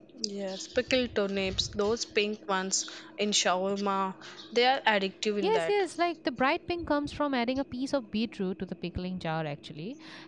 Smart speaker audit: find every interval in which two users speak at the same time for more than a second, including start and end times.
none

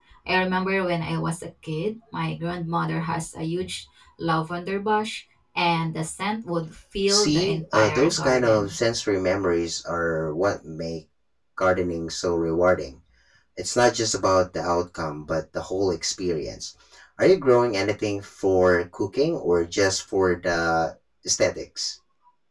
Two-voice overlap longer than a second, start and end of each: 7.1-8.7

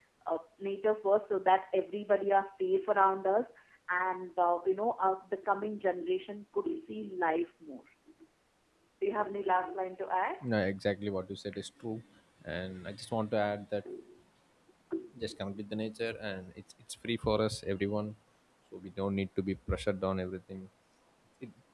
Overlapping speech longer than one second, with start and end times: none

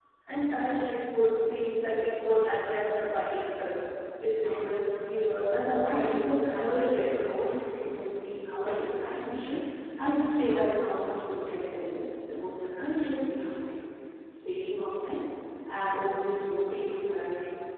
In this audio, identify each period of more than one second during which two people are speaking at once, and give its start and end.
5.8-7.1

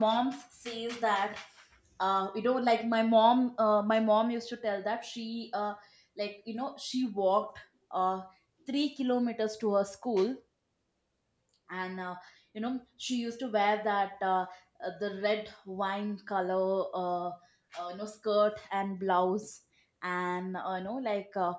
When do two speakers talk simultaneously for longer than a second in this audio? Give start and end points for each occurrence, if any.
none

